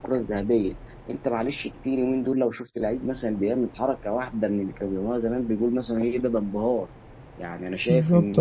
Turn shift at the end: Yes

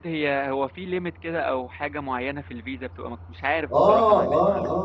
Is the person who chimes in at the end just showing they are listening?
No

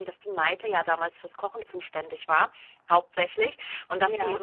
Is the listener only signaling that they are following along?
Yes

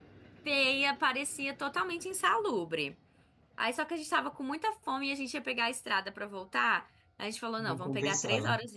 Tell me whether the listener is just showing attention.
Yes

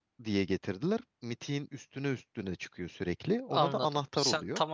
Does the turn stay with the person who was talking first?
No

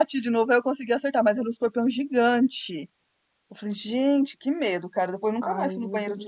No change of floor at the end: No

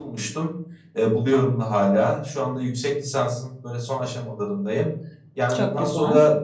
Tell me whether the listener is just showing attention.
Yes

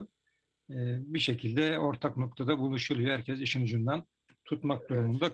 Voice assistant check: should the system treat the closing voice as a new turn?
No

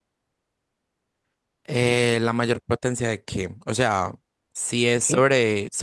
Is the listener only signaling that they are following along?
Yes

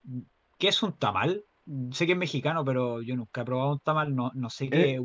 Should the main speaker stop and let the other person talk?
Yes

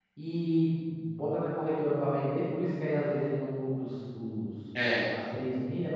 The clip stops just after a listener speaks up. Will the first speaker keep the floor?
Yes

